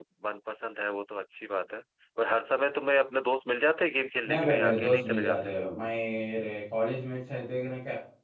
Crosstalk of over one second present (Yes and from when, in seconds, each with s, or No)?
Yes, from 4.2 s